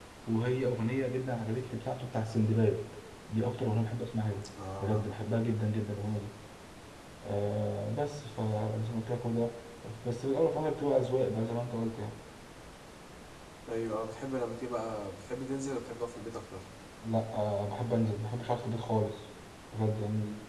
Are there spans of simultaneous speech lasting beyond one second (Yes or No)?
No